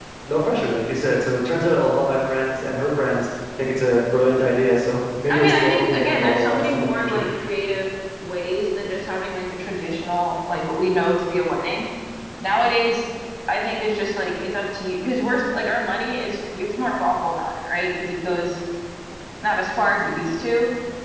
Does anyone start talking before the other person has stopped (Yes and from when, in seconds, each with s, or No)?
Yes, from 5.3 s